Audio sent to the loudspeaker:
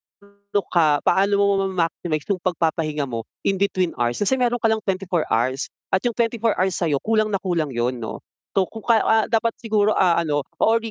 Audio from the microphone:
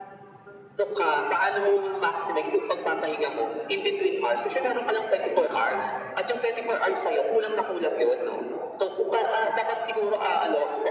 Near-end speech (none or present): present